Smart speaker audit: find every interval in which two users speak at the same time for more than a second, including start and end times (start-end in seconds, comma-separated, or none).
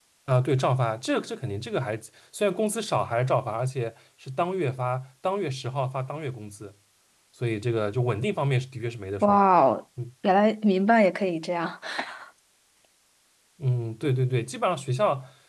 none